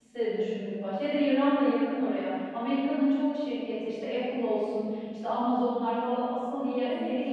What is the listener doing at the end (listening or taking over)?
taking over